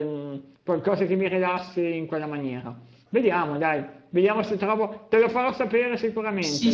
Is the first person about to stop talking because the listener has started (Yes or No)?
Yes